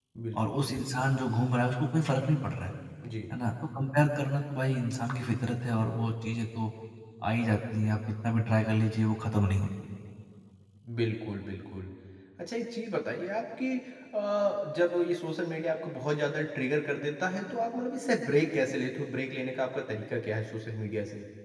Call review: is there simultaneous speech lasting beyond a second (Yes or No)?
No